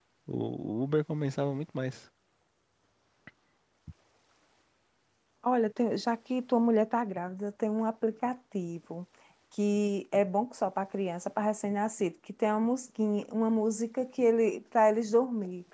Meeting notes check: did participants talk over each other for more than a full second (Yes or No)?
No